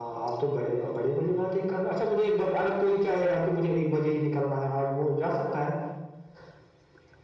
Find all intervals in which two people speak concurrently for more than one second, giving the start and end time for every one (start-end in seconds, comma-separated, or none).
none